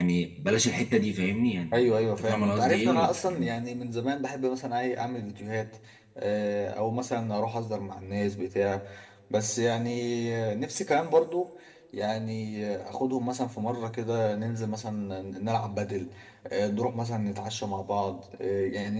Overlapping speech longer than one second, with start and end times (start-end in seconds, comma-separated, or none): 1.7-3.5